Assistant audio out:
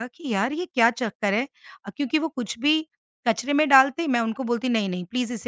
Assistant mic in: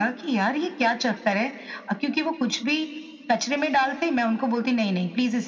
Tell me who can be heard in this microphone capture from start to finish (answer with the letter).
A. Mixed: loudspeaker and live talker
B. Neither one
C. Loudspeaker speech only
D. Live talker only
C